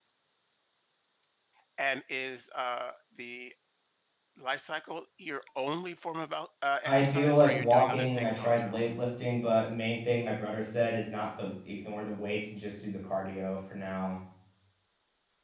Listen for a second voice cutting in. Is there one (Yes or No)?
Yes